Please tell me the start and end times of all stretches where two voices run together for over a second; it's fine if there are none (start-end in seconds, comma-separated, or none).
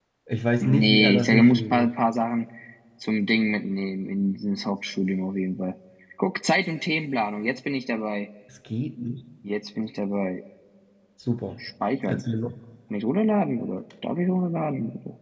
0.6-1.9